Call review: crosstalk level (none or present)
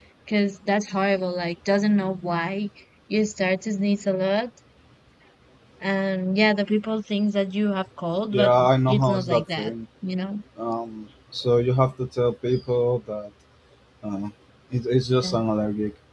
present